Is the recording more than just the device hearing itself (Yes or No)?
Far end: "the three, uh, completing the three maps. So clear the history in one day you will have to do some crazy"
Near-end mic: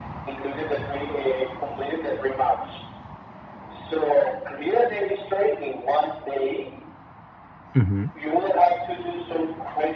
Yes